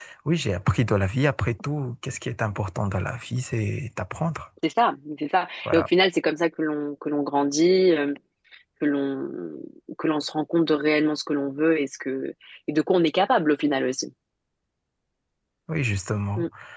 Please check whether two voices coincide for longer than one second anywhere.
No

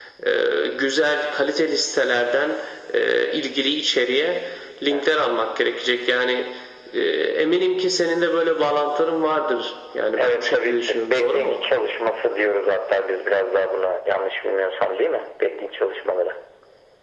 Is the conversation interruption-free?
No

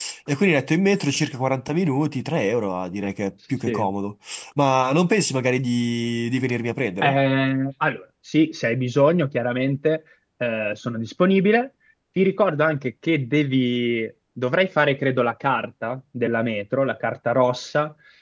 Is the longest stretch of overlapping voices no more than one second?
Yes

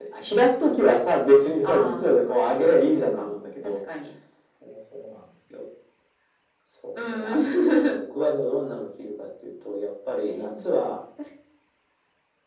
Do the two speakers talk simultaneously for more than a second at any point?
Yes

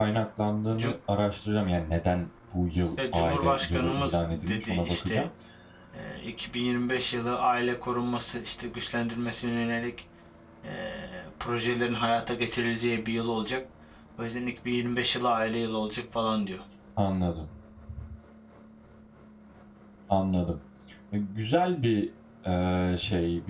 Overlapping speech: Yes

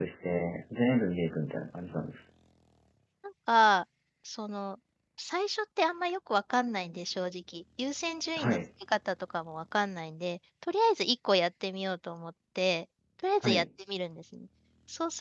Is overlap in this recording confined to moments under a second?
Yes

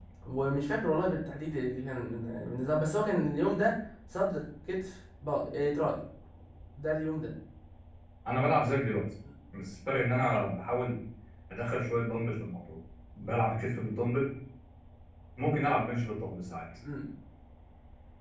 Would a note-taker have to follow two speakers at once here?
No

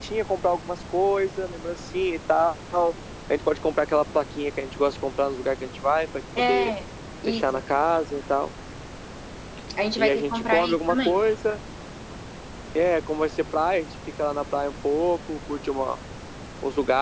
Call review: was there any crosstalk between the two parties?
Yes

